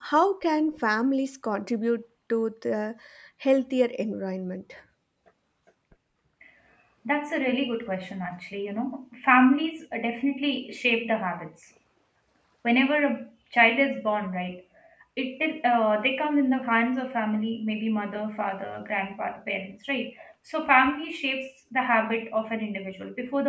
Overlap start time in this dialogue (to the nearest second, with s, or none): none